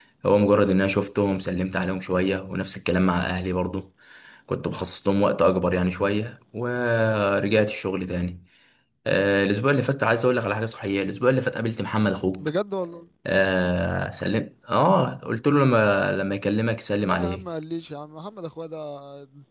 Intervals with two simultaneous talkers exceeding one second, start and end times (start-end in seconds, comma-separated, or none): none